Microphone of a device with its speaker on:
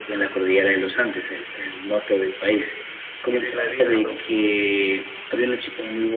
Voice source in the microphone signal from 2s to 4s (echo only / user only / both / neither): both